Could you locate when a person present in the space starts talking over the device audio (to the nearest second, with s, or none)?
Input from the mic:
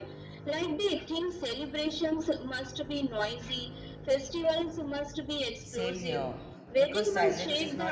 6 s